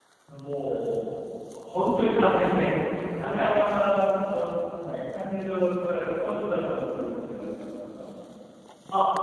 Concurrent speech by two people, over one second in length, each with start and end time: none

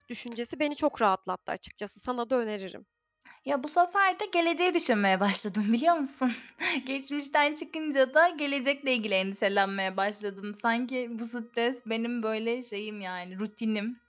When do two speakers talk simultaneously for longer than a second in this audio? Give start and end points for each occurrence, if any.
none

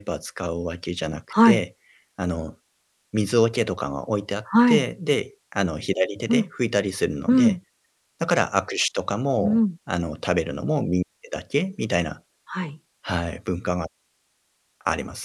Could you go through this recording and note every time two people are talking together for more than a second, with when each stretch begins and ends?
none

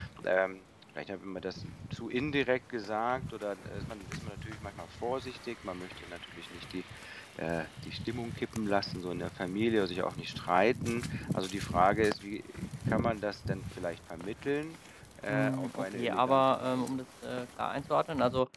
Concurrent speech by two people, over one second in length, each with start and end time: 15.3-16.9

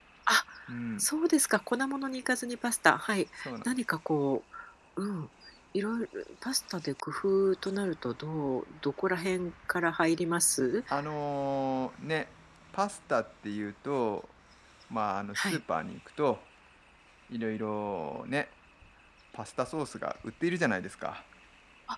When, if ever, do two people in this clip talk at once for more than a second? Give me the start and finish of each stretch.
none

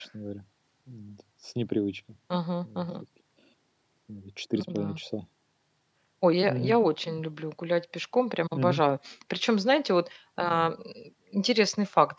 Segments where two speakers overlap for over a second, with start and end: none

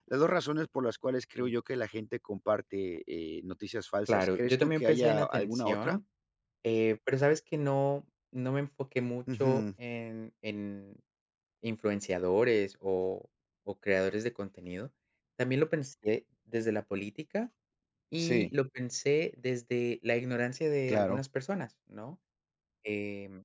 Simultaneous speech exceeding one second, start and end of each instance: 4.1-6.0

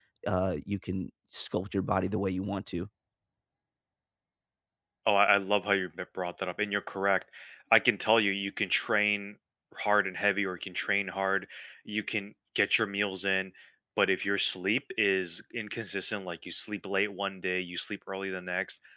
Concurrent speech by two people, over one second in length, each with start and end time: none

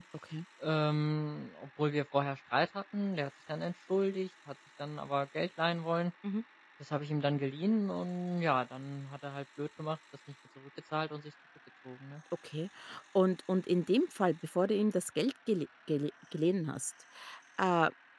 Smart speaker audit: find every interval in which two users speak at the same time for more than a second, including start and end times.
none

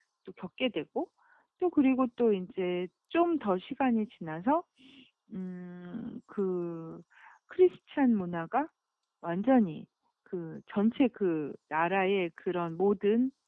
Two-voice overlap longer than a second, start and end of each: none

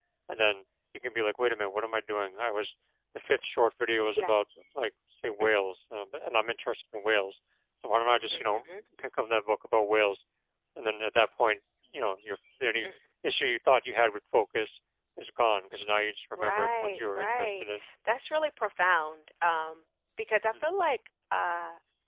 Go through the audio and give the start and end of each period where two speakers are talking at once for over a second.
16.3-17.6

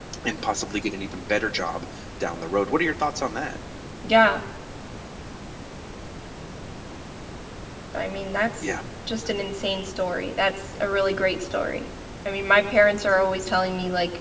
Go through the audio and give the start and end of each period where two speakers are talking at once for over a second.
none

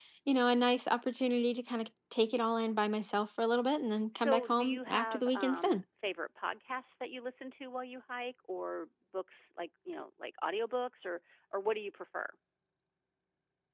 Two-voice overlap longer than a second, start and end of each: 4.1-5.8

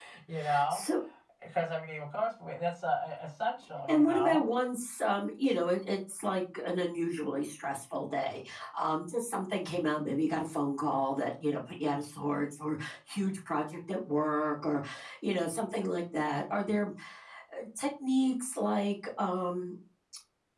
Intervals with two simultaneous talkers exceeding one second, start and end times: none

